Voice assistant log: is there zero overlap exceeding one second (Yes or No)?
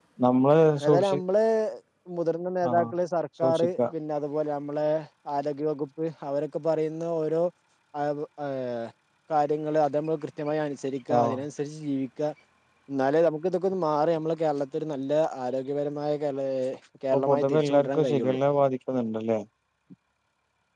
No